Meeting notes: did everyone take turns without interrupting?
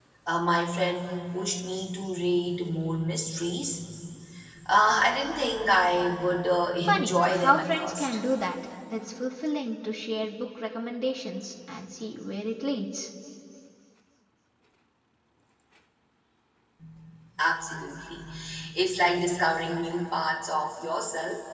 No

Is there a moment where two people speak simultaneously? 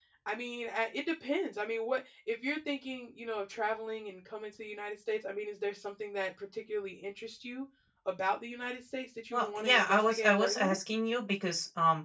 Yes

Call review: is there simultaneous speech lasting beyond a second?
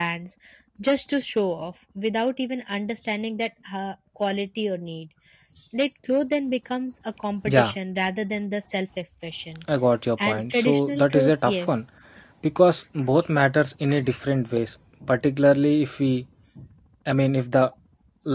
Yes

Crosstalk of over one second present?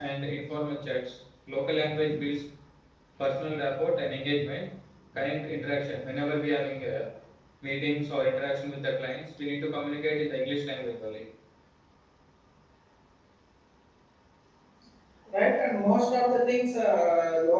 No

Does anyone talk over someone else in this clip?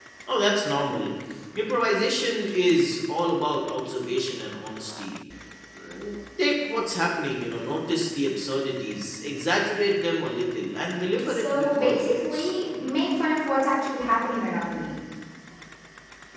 Yes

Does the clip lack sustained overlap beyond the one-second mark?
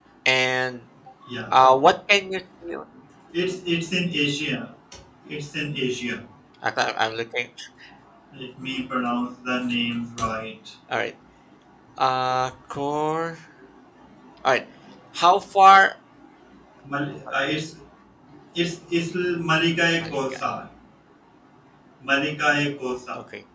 Yes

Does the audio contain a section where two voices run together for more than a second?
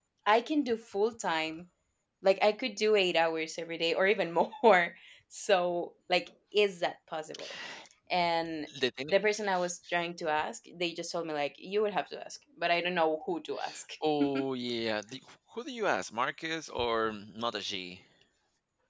No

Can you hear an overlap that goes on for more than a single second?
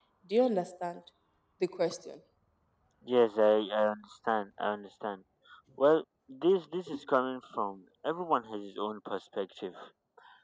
No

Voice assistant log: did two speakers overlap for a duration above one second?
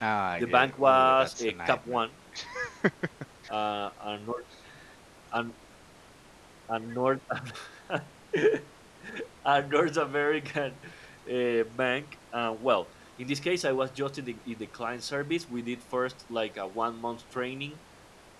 Yes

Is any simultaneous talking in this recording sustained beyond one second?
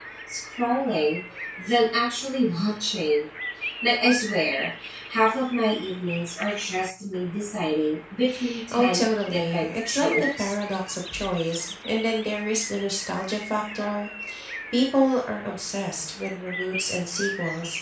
Yes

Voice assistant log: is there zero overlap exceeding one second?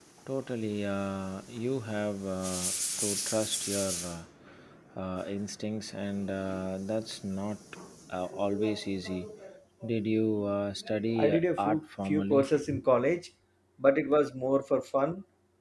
No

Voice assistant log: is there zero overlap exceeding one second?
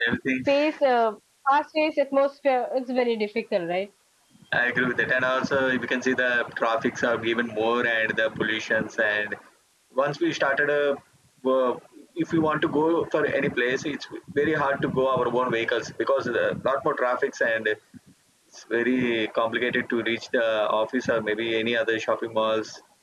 Yes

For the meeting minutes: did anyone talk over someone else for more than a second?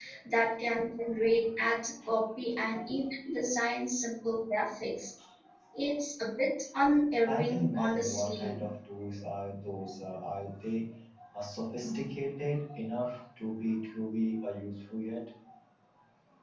Yes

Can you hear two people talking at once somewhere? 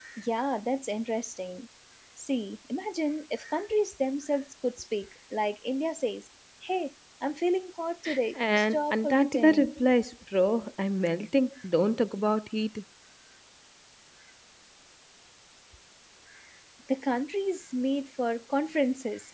Yes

